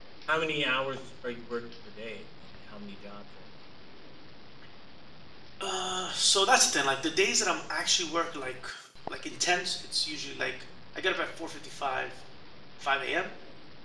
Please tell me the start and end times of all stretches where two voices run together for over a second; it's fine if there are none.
none

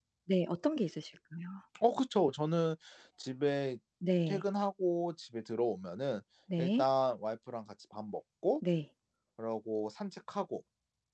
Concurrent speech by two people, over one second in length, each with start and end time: none

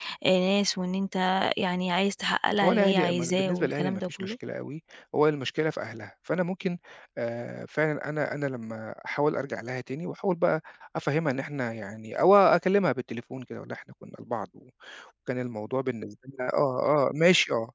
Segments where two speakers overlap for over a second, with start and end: 2.6-4.3

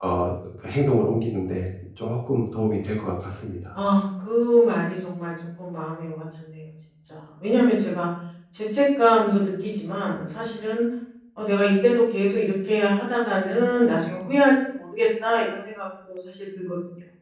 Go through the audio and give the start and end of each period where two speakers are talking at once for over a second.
none

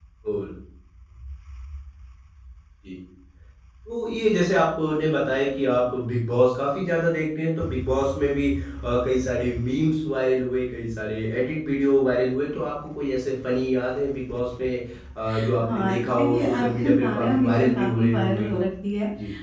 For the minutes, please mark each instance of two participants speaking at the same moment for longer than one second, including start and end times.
15.7-18.5

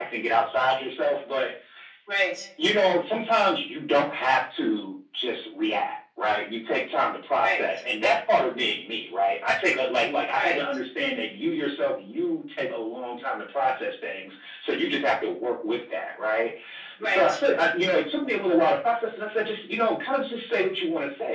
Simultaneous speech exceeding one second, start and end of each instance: none

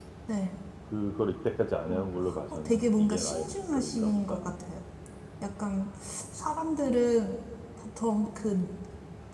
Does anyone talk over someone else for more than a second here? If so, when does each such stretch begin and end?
2.6-4.5

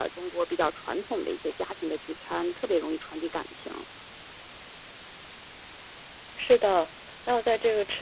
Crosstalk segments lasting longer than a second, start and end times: none

